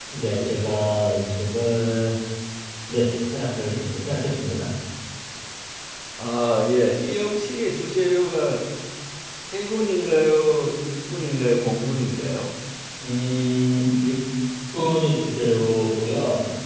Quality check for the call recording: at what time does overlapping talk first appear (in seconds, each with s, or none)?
none